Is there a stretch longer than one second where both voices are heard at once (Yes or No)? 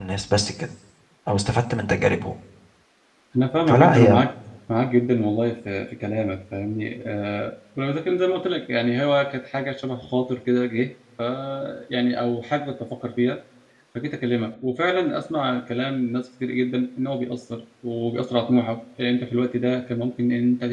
No